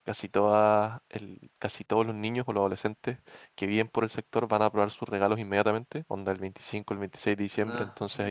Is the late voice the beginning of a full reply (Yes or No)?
No